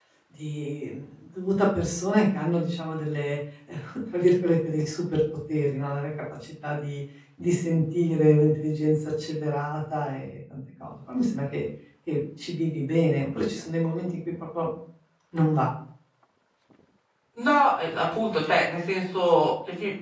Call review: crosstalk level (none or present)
none